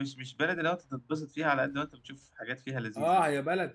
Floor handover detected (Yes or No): Yes